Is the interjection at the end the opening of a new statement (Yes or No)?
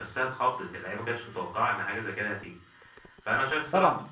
No